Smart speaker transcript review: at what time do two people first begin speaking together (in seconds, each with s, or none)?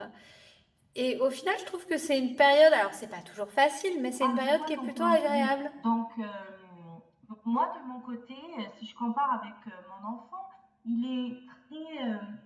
4.2 s